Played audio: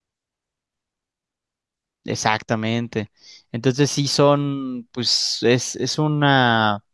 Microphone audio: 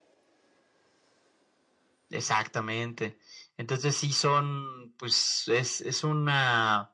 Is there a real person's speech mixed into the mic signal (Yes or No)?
No